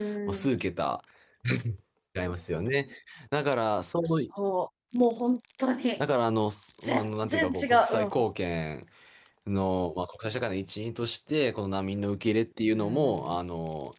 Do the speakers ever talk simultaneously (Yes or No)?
Yes